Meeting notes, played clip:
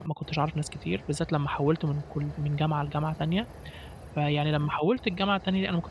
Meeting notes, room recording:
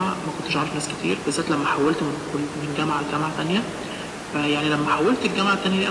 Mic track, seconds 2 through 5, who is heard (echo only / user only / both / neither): echo only